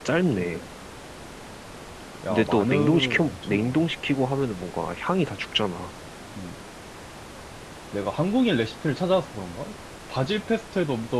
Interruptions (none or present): present